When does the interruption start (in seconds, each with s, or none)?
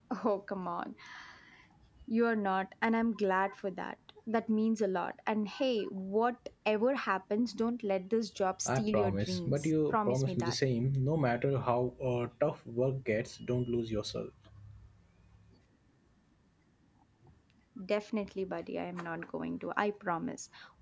8.7 s